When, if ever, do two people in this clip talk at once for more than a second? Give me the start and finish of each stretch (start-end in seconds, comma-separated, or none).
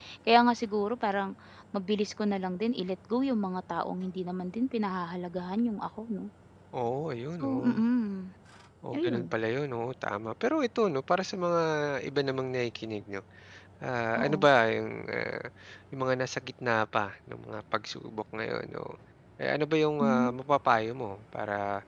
none